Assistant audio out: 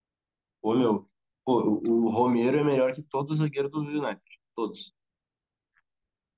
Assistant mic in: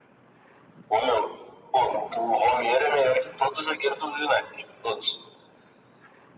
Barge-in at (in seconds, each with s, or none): none